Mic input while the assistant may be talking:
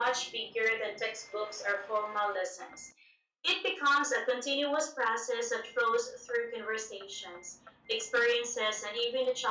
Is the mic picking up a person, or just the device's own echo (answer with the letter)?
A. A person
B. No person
B